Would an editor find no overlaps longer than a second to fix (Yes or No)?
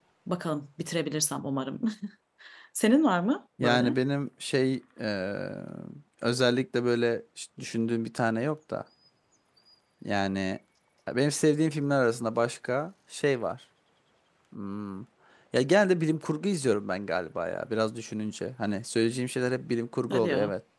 Yes